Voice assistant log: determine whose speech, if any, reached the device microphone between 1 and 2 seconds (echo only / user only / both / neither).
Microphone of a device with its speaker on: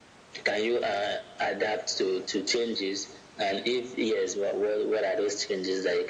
echo only